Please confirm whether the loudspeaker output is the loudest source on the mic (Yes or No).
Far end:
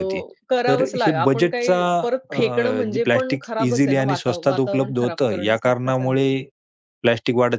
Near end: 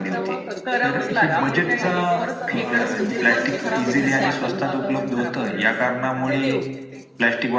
Yes